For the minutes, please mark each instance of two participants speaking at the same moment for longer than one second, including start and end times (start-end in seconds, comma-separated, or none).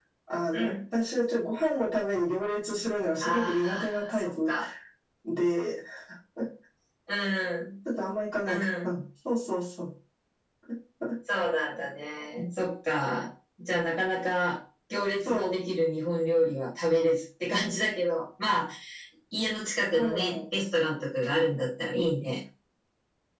3.2-4.5